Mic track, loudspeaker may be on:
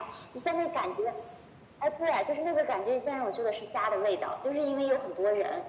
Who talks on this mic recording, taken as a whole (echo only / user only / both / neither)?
echo only